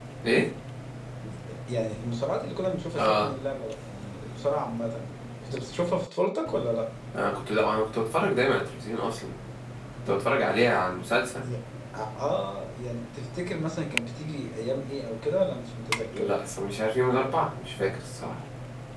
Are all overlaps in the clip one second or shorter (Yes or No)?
Yes